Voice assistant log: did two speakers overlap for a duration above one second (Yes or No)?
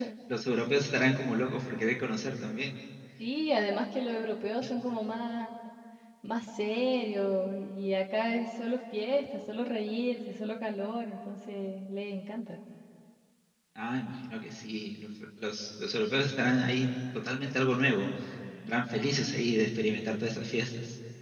No